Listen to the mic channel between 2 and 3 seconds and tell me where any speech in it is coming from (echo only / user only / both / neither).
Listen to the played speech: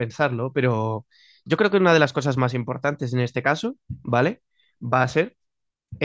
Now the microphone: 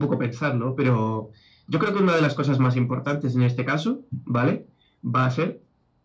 echo only